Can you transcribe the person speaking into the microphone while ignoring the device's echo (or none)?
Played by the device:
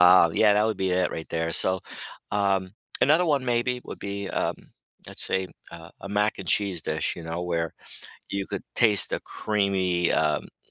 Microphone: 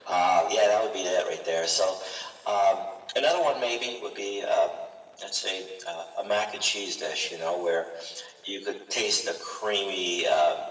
none